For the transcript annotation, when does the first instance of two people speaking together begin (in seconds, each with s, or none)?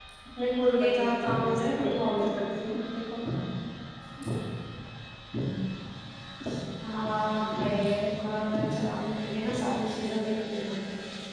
0.8 s